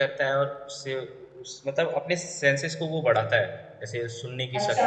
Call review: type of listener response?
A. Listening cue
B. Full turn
B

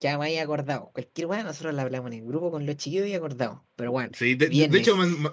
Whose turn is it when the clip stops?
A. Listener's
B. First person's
A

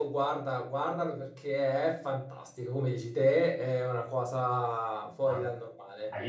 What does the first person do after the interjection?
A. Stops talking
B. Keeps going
A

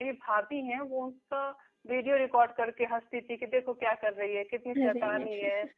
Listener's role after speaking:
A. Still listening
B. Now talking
A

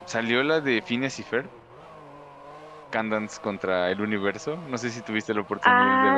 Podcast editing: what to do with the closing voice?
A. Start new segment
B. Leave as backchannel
A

